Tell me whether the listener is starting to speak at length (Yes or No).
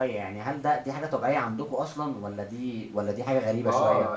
Yes